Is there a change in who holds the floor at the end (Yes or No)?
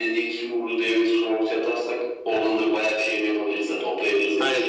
Yes